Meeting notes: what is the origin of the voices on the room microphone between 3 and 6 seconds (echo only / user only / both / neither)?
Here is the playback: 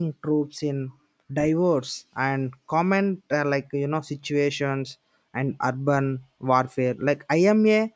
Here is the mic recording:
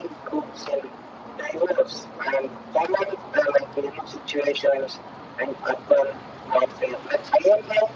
echo only